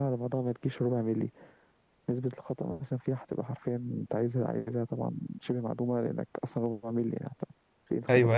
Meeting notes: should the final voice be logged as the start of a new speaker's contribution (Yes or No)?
Yes